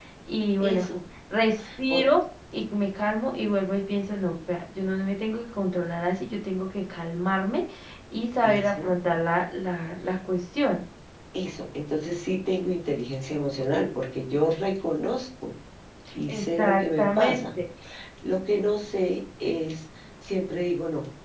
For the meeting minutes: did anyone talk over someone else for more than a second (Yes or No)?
Yes